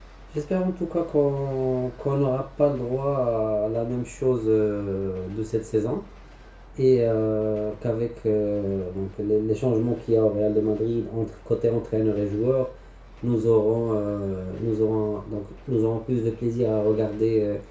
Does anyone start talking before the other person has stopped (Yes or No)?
No